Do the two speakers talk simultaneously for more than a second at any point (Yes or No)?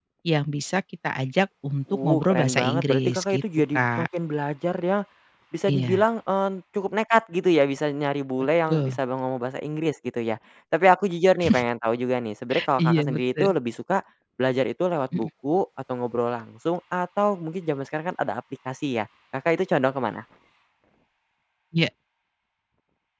Yes